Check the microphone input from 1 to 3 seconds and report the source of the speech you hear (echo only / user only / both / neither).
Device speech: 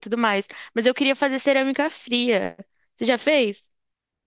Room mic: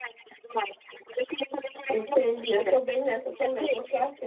both